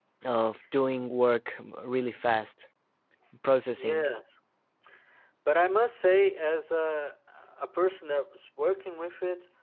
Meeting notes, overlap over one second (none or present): none